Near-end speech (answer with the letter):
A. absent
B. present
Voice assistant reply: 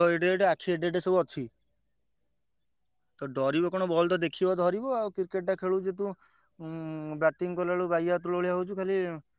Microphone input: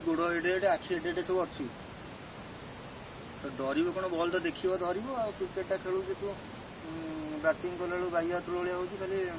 A